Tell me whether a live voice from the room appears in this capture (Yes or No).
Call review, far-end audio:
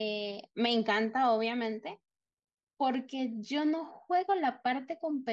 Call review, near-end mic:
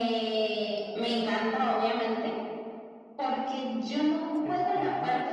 Yes